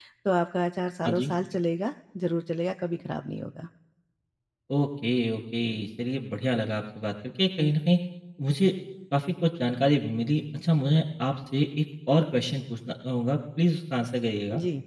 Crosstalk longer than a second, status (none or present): none